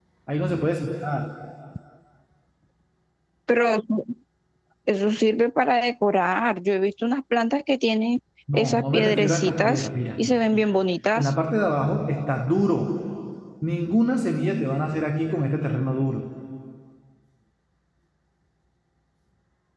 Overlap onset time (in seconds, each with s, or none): 8.5 s